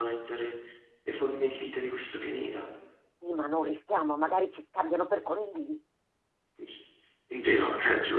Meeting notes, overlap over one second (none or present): none